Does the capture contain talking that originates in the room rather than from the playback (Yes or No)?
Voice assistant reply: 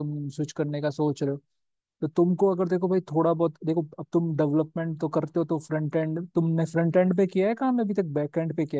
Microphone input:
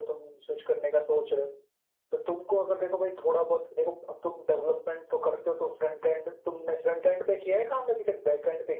No